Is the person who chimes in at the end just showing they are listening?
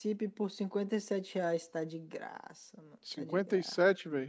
No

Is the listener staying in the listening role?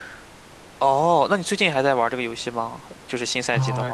No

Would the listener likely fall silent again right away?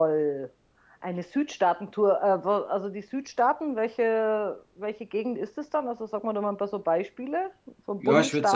No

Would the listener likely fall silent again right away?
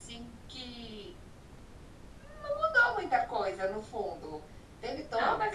Yes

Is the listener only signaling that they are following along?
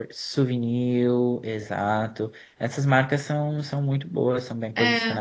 No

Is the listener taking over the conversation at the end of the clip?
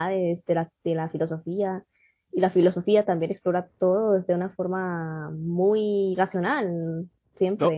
Yes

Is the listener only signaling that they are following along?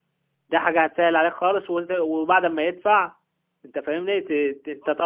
Yes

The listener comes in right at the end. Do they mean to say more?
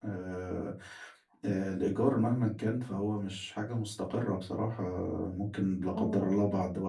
No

